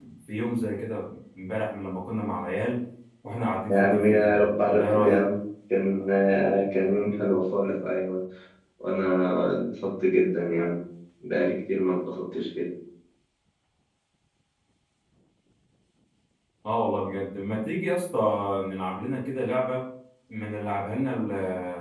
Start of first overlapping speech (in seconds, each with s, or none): 3.7 s